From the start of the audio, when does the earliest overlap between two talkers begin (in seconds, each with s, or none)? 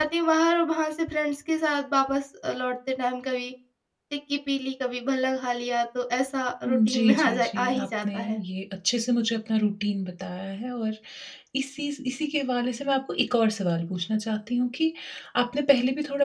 6.6 s